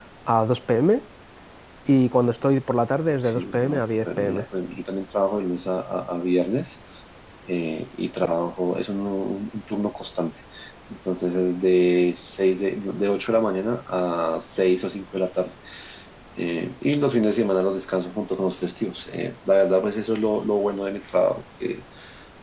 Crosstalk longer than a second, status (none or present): present